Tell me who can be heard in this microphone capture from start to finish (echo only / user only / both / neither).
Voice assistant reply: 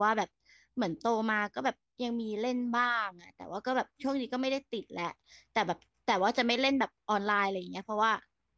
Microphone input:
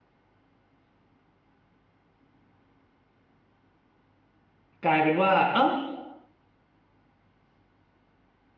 user only